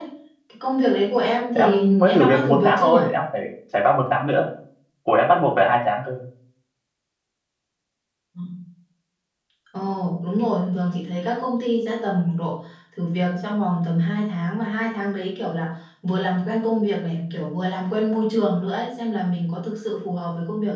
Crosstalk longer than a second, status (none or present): present